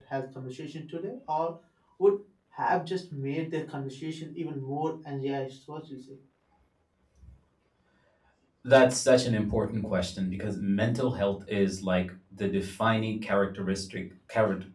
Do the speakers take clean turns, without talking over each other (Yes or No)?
Yes